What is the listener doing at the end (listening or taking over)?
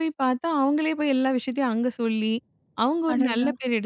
listening